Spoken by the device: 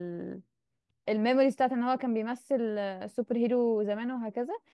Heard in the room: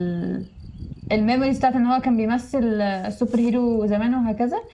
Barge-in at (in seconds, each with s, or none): none